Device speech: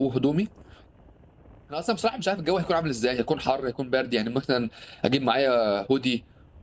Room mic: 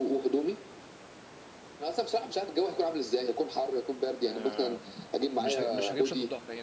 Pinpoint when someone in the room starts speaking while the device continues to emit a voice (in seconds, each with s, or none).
4.2 s